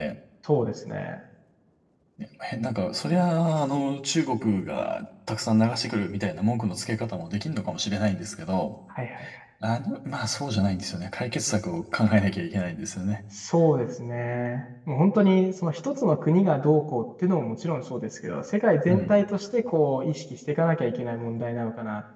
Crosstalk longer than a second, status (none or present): none